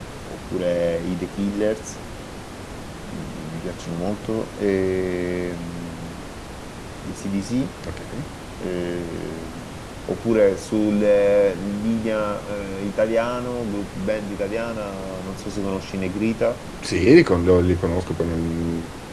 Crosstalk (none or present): none